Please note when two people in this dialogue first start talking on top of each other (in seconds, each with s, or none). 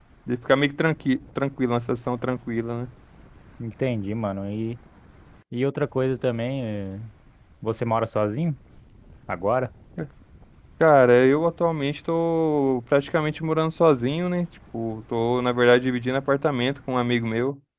none